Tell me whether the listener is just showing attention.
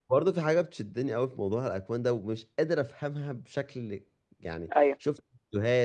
Yes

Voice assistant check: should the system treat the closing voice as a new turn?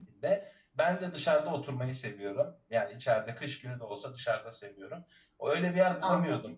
No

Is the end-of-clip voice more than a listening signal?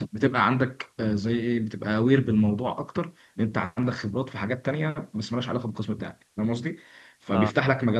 No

